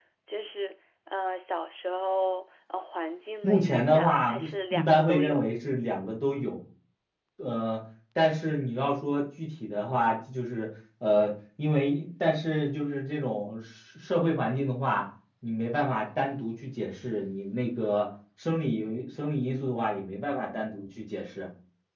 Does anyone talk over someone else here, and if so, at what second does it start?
3.4 s

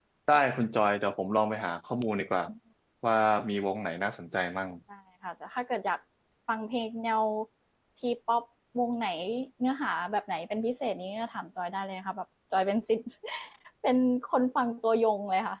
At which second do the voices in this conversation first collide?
none

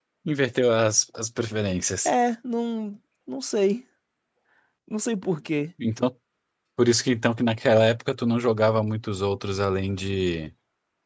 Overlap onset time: none

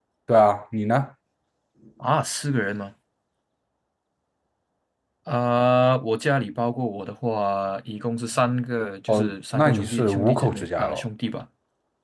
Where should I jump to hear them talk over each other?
9.1 s

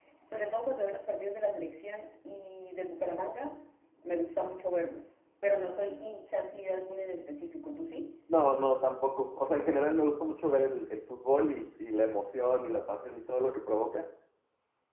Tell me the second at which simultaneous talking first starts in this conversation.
none

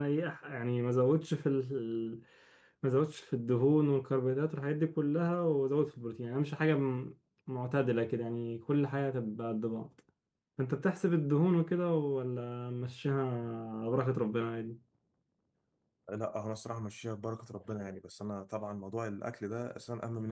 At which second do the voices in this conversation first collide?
none

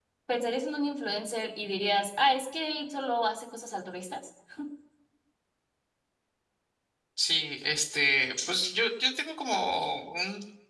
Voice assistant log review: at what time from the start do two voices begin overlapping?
none

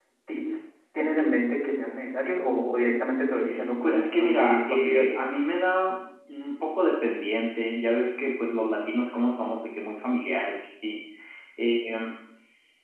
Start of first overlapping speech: 3.8 s

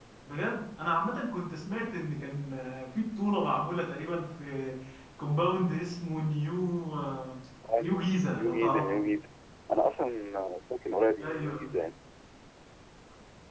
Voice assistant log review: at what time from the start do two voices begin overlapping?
7.8 s

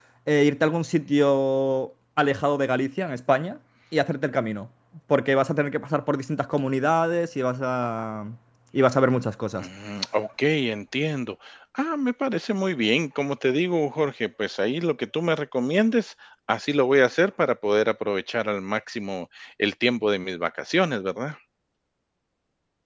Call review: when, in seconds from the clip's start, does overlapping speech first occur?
none

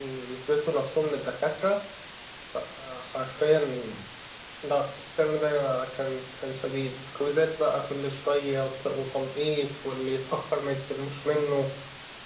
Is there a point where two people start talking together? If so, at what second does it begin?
none

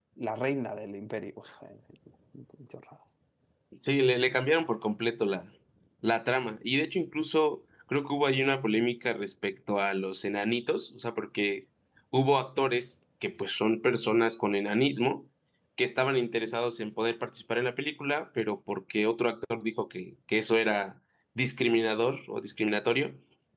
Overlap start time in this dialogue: none

